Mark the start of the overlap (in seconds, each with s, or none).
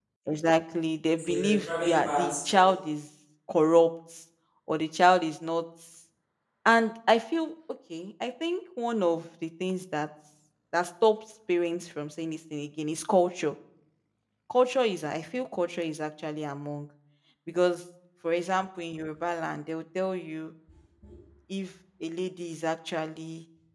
1.2 s